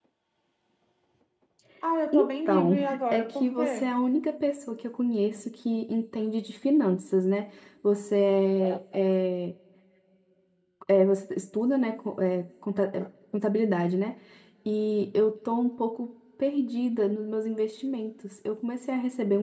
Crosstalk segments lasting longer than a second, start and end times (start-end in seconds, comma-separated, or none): 2.1-3.9